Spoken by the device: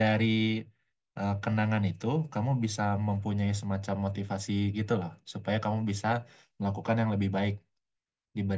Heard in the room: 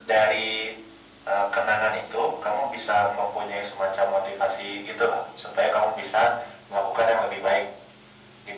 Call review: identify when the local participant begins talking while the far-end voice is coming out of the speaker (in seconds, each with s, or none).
none